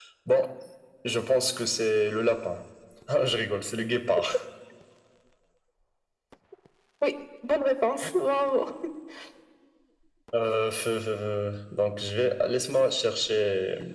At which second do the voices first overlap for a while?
none

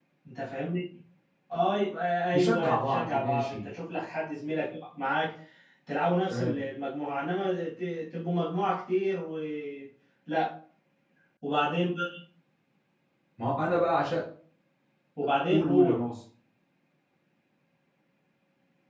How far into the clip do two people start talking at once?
2.3 s

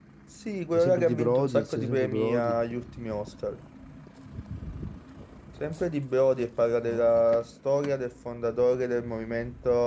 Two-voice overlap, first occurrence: 0.7 s

